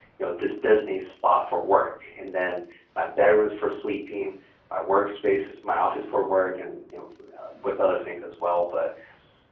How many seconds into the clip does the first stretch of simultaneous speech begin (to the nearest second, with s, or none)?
none